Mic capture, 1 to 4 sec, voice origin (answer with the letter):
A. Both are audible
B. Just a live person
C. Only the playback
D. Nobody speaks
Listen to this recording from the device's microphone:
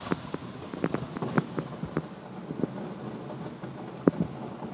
D